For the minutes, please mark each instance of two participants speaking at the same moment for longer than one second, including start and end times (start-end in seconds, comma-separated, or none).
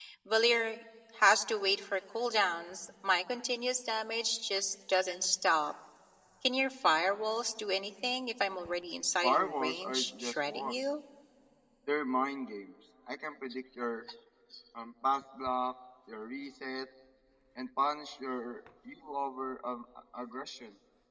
9.2-10.8